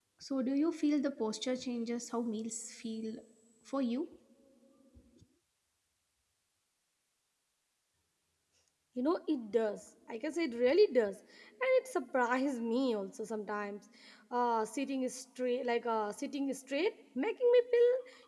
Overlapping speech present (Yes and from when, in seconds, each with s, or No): No